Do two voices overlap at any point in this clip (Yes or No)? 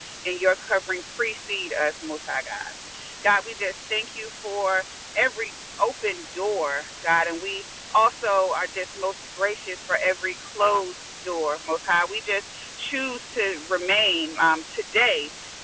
No